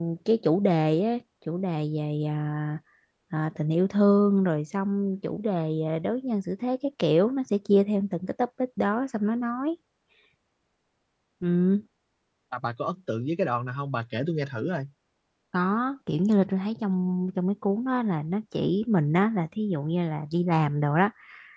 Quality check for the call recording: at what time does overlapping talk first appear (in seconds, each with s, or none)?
none